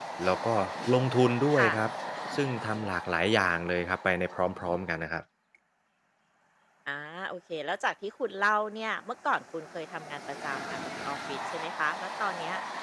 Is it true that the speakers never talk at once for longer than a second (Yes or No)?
Yes